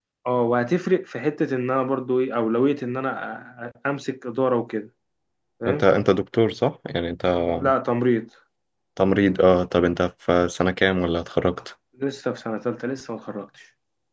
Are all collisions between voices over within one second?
Yes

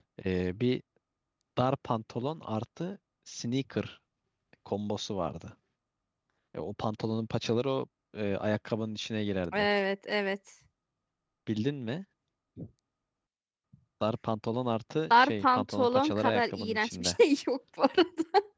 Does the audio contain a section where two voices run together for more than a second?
Yes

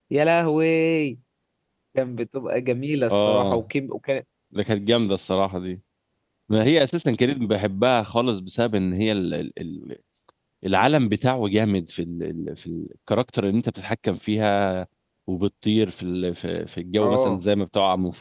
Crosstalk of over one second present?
No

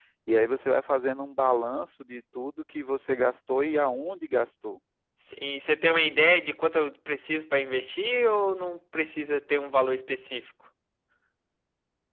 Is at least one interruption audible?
No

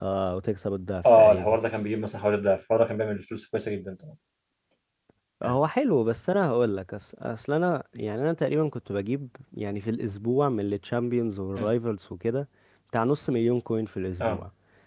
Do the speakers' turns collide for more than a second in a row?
No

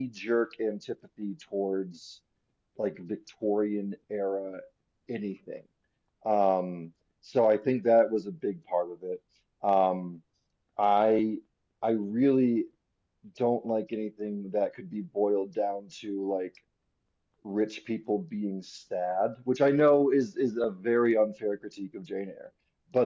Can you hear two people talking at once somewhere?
No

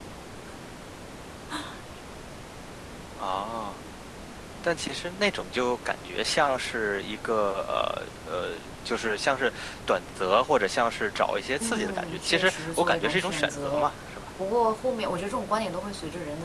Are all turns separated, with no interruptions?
No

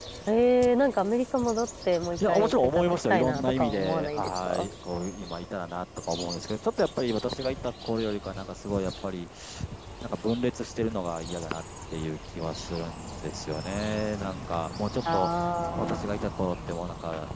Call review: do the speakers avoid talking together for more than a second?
No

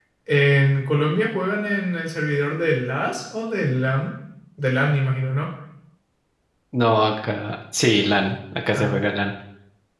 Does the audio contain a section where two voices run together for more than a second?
No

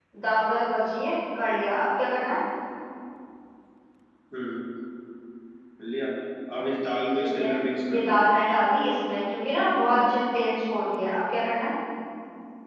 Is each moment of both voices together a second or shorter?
Yes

